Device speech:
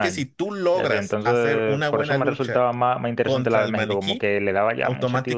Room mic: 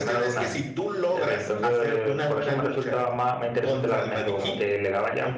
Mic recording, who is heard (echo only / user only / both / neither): both